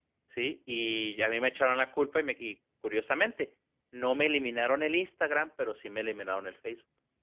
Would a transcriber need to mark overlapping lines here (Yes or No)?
No